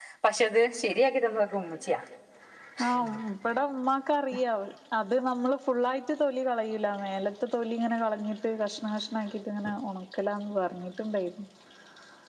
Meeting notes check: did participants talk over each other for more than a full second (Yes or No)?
No